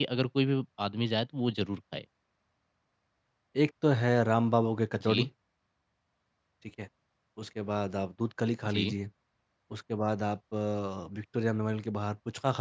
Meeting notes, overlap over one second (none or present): none